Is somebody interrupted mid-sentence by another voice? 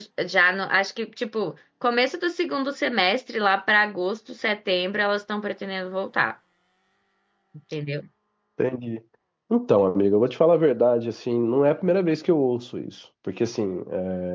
No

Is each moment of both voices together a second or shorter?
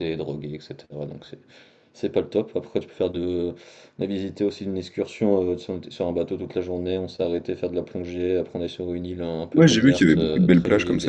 No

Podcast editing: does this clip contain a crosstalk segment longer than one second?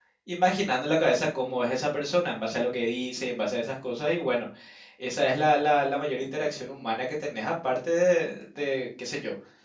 No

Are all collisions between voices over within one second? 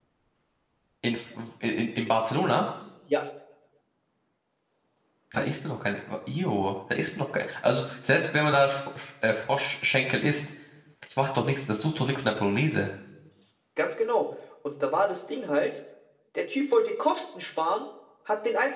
Yes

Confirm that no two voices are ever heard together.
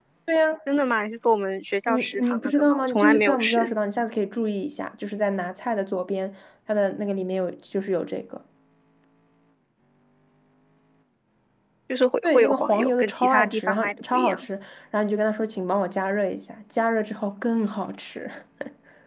No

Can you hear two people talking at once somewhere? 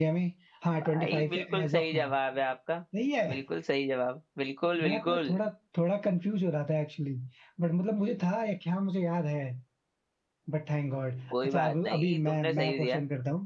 Yes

